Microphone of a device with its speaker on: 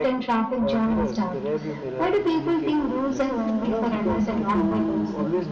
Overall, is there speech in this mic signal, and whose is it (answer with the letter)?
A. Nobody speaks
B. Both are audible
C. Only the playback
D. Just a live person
C